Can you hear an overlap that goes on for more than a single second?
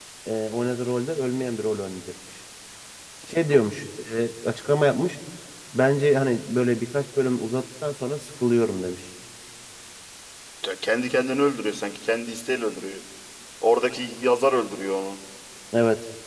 No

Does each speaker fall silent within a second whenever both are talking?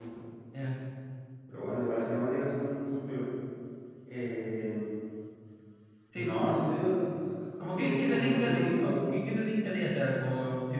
No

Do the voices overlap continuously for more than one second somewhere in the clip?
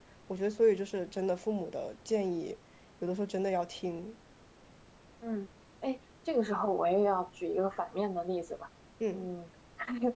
No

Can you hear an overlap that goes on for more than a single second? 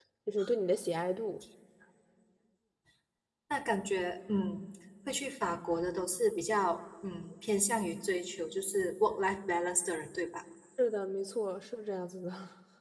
No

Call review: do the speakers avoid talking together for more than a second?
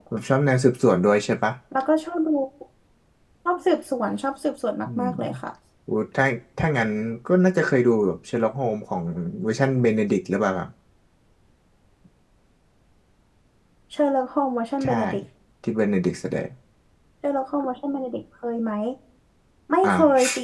Yes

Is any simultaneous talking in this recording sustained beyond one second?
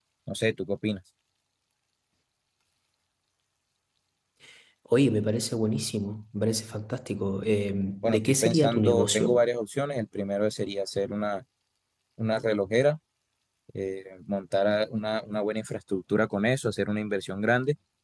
Yes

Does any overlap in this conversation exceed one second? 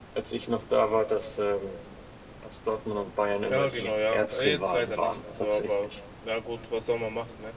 Yes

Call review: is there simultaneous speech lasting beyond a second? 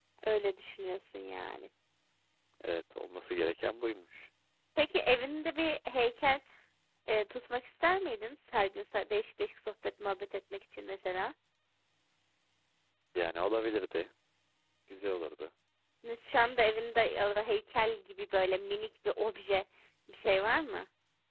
No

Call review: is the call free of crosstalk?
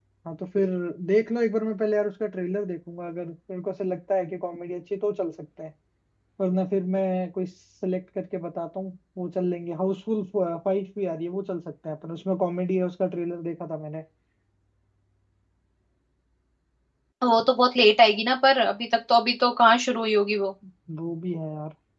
Yes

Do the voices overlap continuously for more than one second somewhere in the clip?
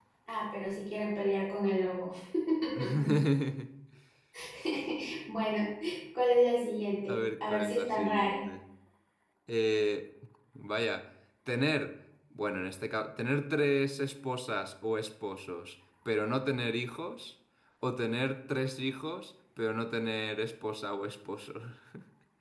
Yes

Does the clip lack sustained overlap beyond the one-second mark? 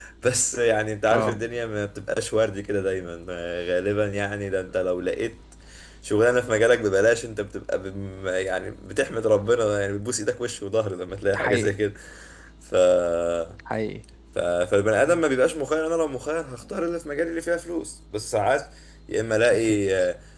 Yes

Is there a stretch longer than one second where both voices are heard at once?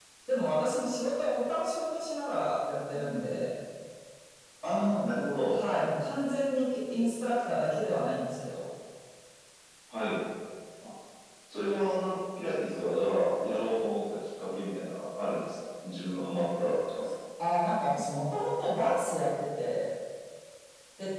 No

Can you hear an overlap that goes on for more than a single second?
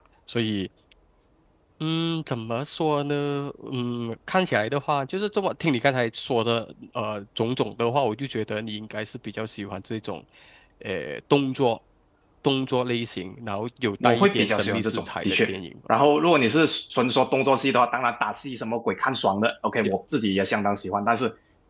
Yes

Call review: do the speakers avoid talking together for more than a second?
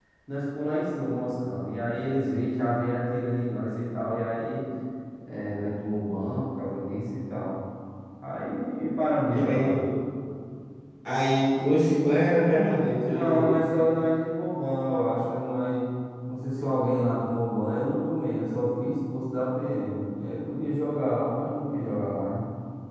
Yes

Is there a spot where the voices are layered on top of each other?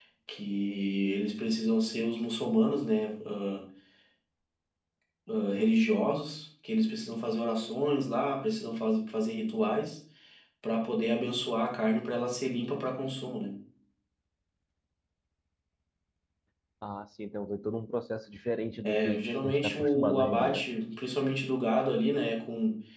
Yes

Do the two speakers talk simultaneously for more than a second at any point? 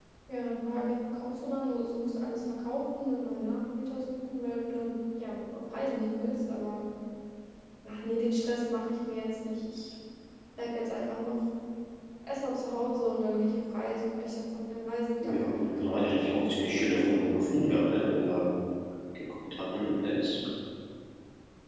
Yes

